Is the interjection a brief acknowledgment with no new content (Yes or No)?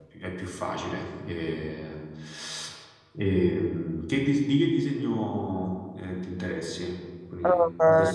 No